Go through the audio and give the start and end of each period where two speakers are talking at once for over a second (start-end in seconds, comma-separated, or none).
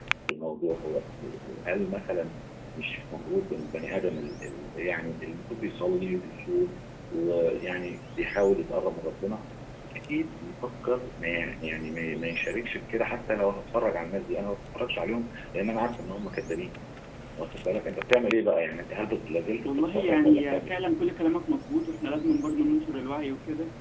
19.6-20.8